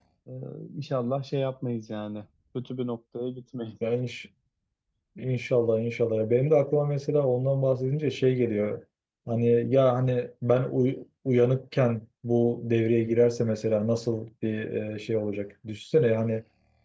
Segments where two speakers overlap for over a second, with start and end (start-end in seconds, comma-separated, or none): none